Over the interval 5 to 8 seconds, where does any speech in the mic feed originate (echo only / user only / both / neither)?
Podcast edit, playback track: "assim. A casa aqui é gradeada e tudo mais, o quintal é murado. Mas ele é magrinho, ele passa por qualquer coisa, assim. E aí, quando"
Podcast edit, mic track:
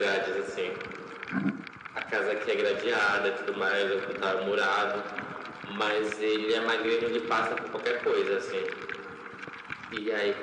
echo only